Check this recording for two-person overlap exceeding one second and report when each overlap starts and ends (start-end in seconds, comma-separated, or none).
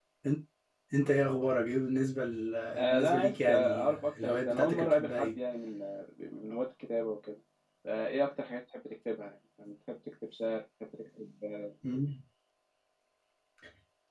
2.8-5.3